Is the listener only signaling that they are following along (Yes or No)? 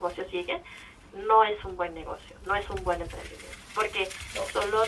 Yes